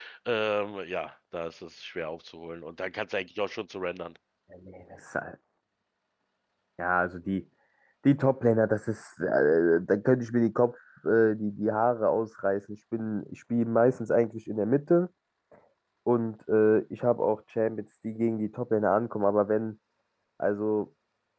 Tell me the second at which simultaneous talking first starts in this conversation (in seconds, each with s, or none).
none